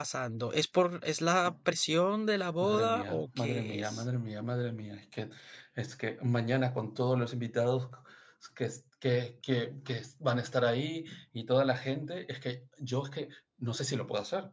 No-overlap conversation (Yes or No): No